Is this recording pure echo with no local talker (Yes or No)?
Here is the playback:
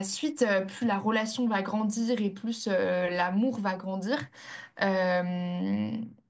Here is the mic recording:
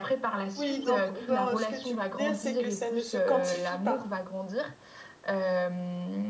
No